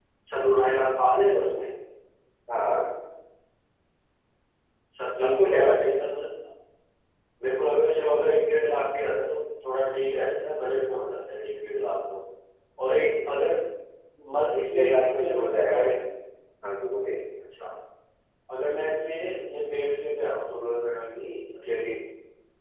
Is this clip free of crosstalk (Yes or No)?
No